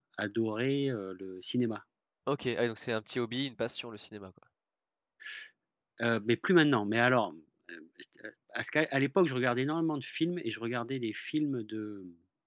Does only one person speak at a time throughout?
Yes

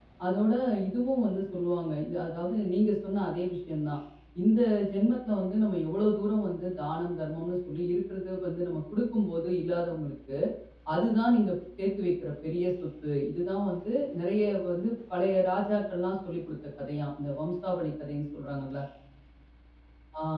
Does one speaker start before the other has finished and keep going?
No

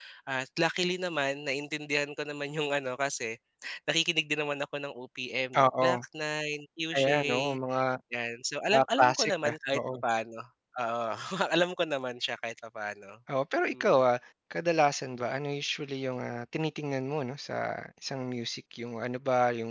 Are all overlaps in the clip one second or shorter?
No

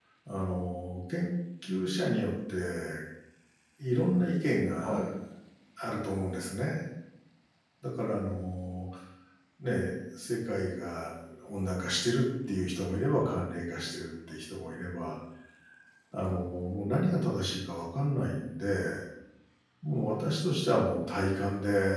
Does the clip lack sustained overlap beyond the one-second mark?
Yes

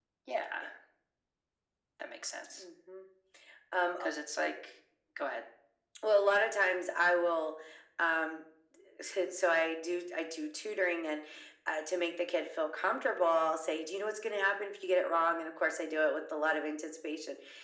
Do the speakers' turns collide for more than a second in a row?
No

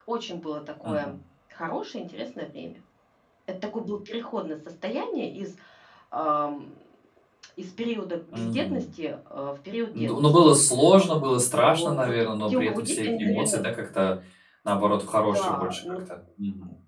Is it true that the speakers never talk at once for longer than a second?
No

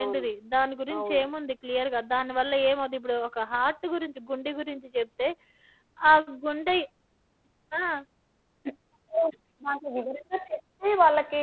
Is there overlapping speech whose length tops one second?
No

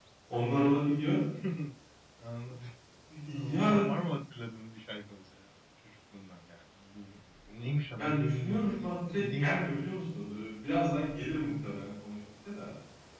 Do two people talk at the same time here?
Yes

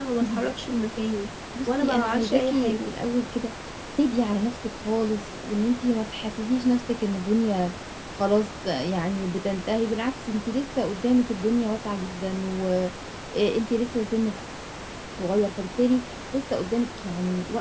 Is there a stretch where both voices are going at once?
Yes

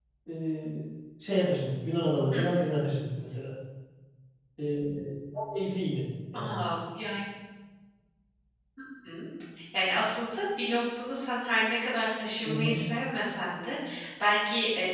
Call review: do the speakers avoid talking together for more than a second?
Yes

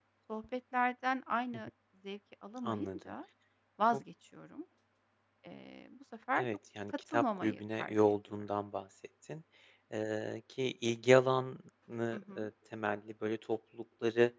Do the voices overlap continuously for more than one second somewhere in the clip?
Yes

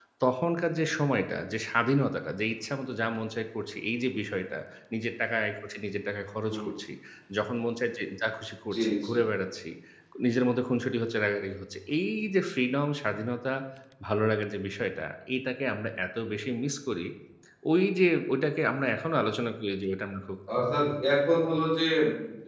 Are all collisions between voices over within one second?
Yes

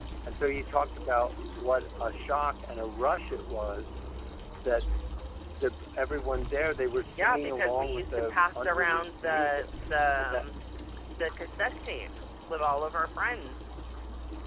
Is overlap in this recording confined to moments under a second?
No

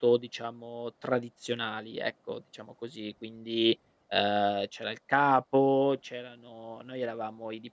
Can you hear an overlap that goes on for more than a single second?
No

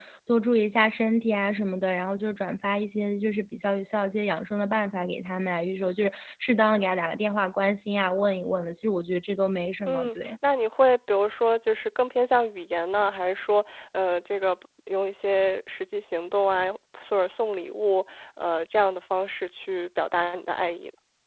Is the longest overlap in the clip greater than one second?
No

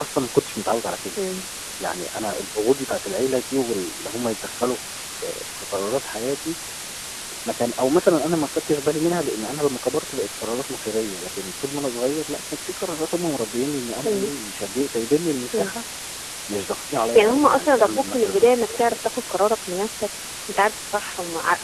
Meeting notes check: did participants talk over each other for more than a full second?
Yes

